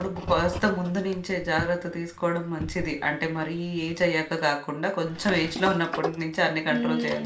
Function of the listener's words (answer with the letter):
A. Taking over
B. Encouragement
A